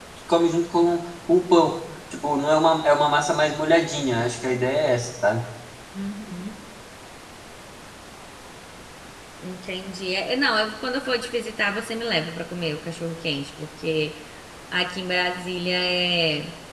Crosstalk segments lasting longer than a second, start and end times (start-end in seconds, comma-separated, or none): none